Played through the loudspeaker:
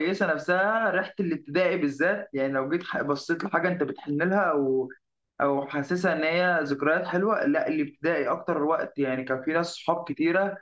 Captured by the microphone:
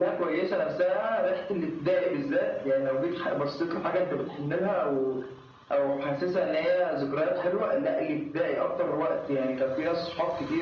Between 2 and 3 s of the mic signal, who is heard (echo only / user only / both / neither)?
echo only